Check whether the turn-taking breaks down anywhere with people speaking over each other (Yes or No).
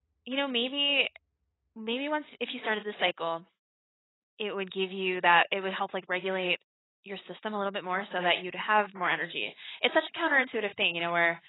No